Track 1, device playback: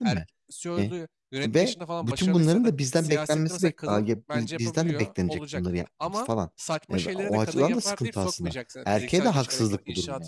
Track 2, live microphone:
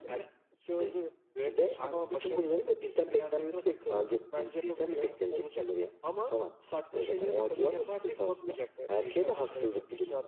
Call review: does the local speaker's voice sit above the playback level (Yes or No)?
No